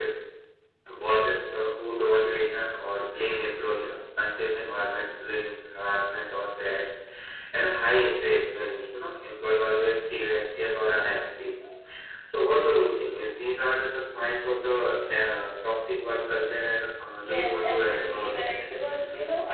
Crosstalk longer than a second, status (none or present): present